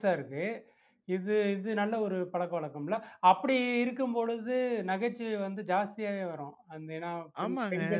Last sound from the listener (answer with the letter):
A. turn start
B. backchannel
A